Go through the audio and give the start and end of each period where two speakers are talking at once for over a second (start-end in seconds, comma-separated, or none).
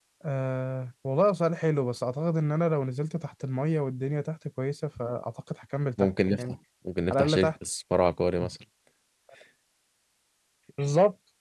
none